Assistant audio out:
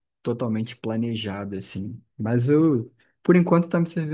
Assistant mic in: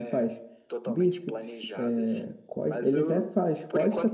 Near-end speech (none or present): present